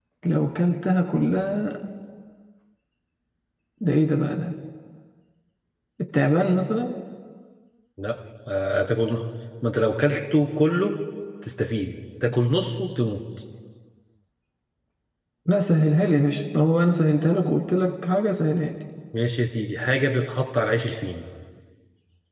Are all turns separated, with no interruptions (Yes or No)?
Yes